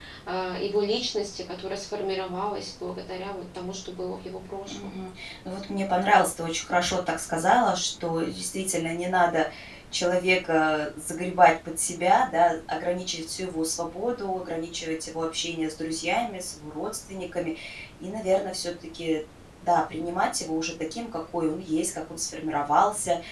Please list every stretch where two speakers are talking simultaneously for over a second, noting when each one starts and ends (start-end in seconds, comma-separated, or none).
none